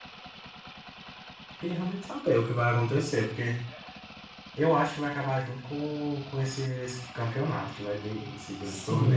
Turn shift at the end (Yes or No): Yes